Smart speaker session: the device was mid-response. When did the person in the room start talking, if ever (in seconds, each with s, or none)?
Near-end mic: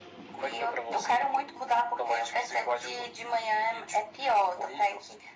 none